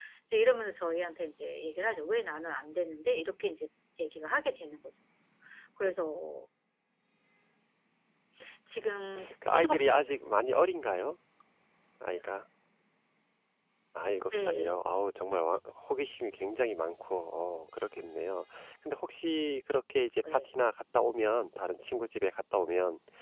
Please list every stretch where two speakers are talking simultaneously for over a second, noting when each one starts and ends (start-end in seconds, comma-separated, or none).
8.8-10.1